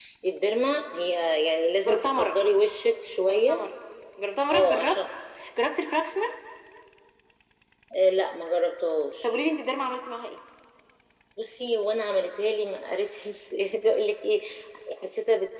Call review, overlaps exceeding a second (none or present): none